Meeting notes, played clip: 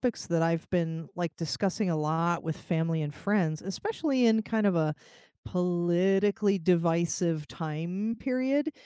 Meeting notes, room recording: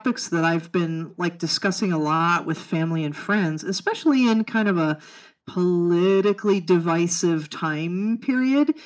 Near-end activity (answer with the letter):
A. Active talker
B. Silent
B